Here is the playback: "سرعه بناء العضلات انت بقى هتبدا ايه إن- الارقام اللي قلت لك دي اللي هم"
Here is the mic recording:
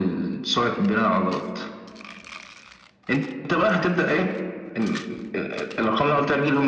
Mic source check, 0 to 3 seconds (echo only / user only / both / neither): echo only